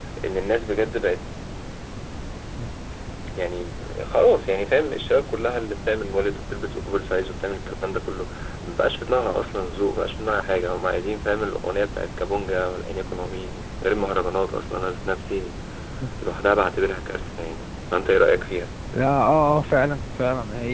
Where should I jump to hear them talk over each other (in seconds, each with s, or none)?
none